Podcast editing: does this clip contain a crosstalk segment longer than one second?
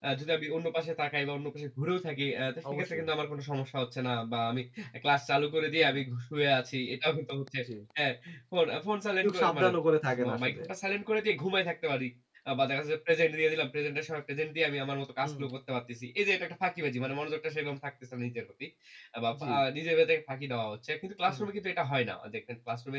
No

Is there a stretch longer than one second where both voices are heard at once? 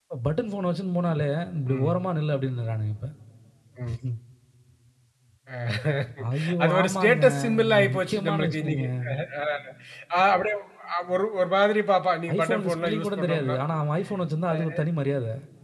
Yes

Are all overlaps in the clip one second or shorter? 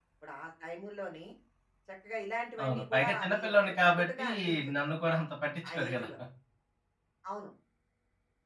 No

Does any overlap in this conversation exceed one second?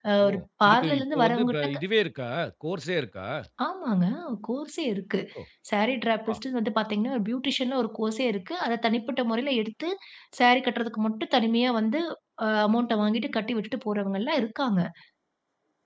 Yes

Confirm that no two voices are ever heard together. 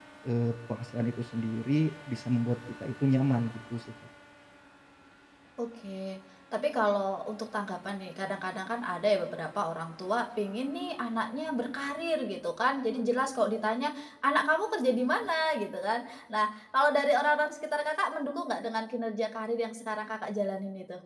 Yes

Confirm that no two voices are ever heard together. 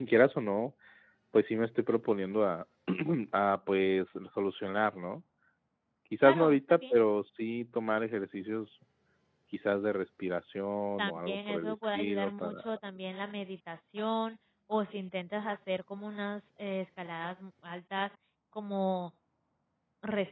No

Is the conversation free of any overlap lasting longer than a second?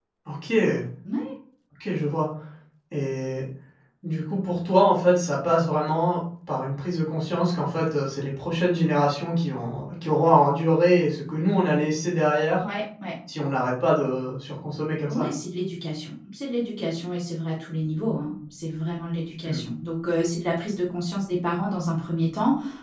Yes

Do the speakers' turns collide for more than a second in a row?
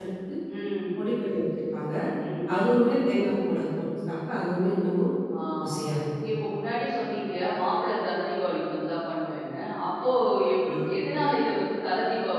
No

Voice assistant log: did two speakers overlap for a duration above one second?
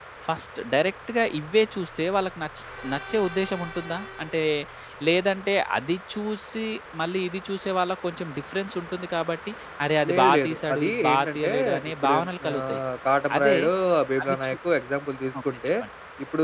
Yes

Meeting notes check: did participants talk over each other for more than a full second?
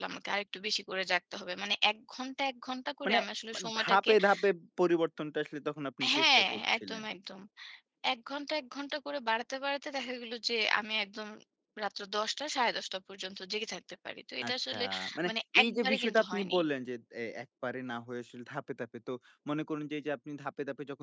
Yes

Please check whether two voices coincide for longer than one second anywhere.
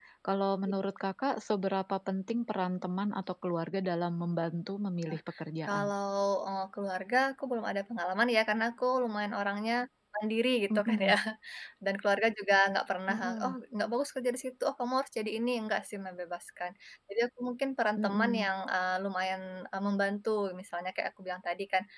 No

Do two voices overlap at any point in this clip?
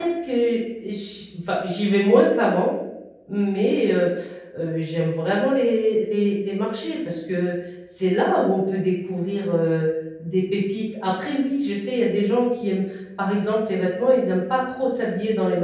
No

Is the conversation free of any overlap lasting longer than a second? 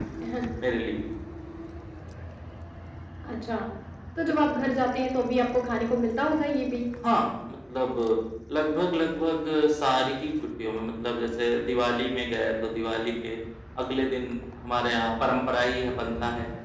Yes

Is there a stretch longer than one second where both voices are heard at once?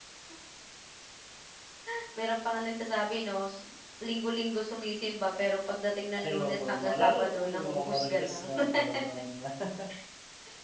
Yes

